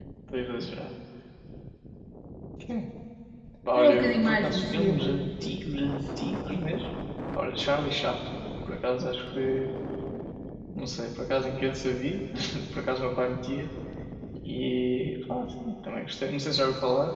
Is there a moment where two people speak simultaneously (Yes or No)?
Yes